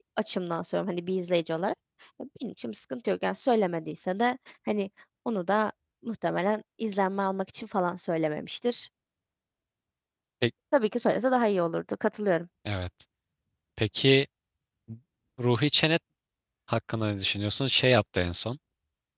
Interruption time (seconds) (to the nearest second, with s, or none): none